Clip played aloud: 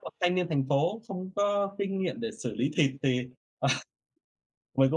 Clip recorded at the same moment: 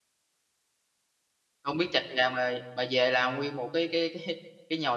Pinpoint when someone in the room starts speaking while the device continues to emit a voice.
1.6 s

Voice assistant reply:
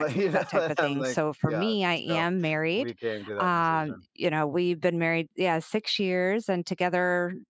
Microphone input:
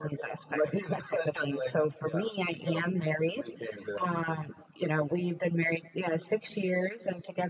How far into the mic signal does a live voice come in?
none

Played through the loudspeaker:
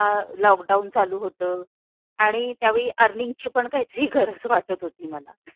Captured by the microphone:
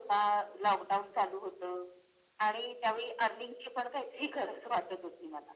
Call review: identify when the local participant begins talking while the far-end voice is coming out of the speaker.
none

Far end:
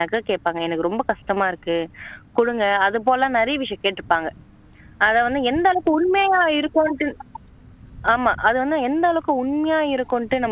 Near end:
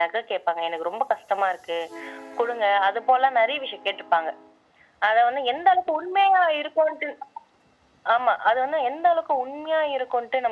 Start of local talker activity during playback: none

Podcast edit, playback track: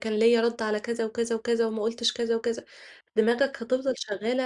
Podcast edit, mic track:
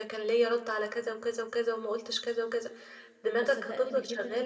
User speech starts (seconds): 3.4 s

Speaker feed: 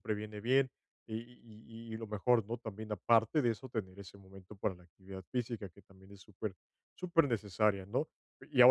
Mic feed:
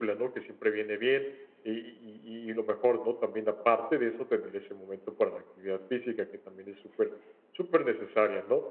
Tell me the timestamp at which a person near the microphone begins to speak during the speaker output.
none

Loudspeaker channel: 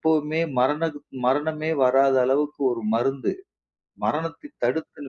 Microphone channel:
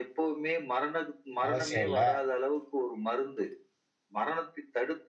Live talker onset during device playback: 1.5 s

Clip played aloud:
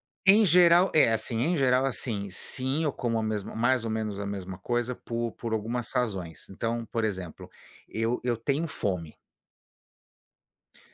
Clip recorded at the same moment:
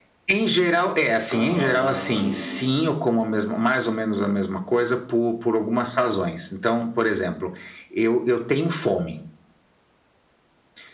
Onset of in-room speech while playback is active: 1.3 s

